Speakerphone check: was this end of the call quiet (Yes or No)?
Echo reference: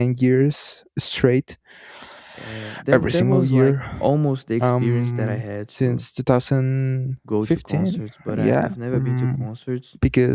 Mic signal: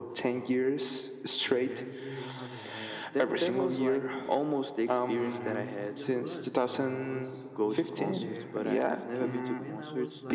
No